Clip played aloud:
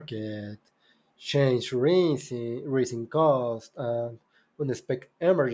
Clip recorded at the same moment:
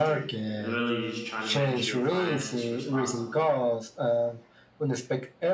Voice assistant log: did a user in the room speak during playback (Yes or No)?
Yes